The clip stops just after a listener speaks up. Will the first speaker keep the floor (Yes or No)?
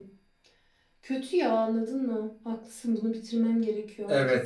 No